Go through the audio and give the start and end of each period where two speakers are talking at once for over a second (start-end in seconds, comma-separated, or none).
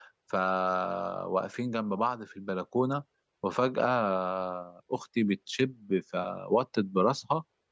none